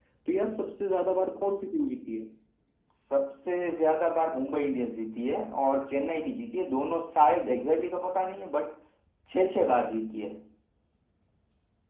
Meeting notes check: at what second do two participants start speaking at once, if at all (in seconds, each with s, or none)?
none